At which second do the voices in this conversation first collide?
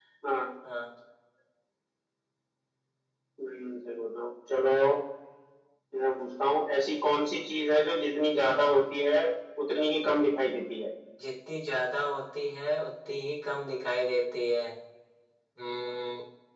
none

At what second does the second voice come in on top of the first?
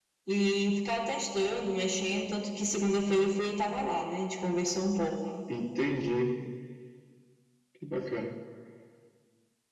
none

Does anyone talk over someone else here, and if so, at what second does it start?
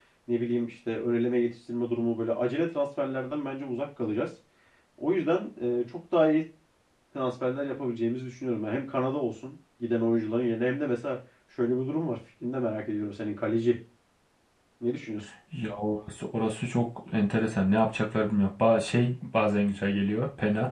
none

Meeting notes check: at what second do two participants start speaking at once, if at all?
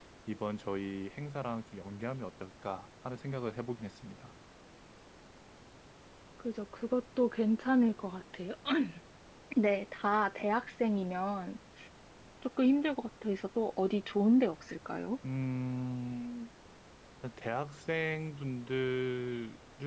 none

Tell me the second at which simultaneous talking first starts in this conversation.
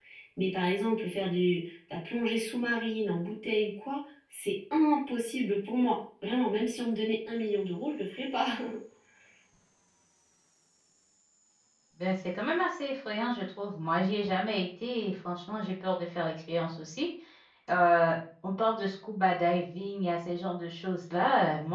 none

